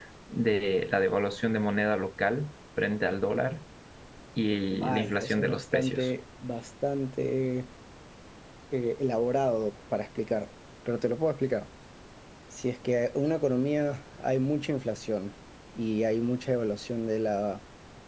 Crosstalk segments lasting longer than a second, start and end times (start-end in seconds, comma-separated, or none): 4.7-6.1